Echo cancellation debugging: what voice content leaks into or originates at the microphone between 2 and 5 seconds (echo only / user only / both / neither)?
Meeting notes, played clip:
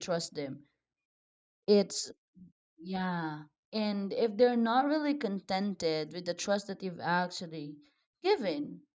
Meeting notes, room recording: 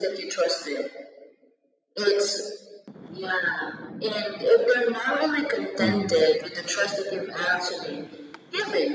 echo only